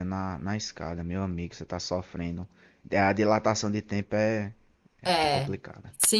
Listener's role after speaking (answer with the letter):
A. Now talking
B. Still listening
A